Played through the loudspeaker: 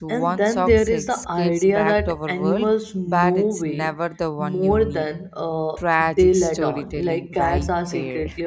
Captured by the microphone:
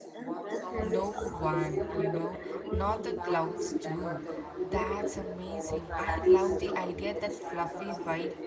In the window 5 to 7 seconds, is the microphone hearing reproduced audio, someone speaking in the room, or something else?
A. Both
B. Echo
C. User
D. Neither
A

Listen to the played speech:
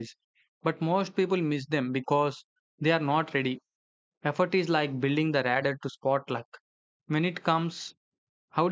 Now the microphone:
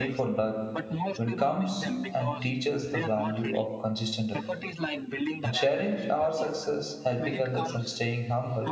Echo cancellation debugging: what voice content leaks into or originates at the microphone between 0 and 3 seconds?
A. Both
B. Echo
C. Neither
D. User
A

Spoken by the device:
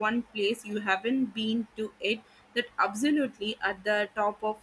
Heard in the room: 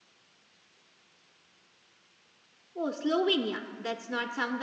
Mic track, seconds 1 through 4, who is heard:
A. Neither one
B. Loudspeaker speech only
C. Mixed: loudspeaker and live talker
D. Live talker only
D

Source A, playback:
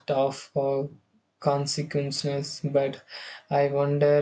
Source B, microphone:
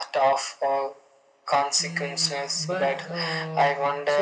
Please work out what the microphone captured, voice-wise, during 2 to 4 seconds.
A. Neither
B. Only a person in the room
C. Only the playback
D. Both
D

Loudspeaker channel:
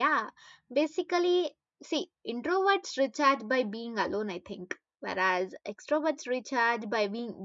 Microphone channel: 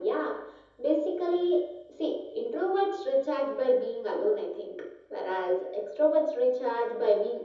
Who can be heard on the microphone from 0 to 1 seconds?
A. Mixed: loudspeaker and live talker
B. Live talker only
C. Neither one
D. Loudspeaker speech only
D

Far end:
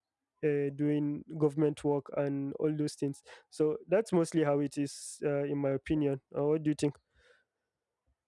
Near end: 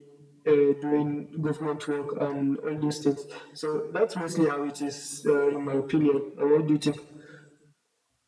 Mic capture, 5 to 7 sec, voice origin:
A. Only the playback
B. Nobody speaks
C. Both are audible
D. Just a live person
A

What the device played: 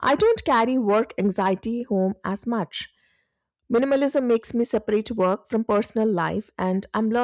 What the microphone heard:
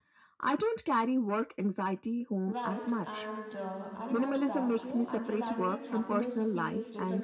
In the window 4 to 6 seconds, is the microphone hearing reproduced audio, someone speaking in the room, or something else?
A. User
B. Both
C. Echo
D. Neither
B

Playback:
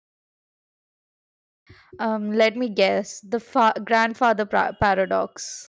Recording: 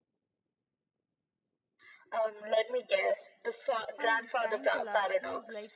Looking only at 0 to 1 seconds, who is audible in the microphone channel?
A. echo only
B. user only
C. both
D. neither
D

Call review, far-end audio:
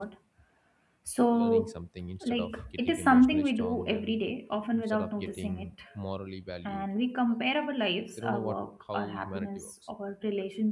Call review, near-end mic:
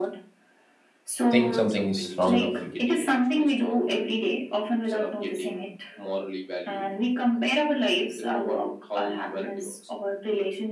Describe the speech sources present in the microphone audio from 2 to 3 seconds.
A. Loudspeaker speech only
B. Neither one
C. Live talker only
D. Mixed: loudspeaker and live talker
D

